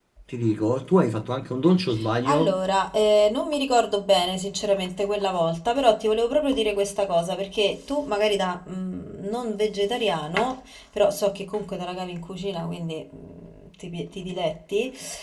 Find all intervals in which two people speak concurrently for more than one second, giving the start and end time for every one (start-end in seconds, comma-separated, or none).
none